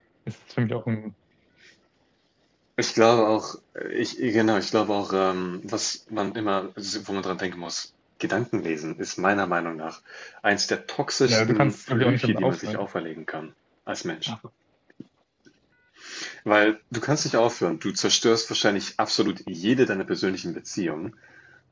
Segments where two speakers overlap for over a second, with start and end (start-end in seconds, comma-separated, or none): 11.3-12.8